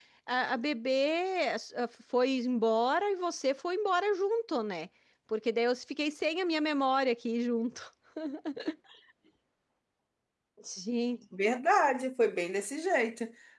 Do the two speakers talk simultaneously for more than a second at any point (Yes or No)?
No